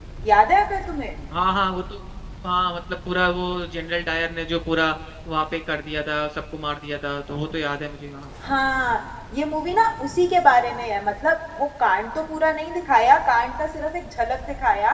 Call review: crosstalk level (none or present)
none